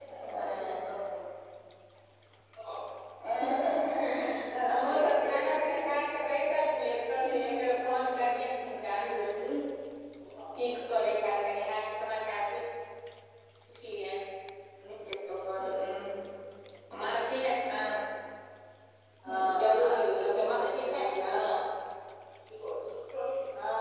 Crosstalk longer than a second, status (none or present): present